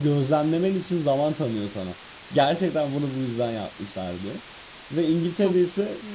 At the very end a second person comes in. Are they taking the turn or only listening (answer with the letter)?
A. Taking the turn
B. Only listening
B